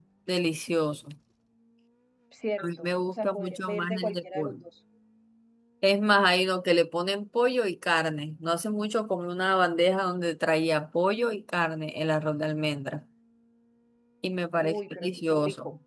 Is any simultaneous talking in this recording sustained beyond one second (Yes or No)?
Yes